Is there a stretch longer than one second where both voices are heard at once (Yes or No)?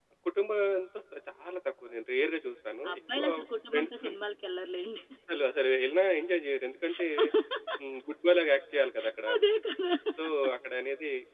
No